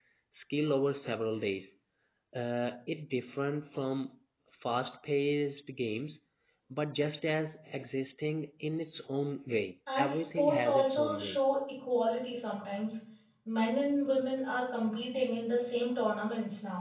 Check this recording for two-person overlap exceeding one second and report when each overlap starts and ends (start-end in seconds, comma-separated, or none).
10.0-11.4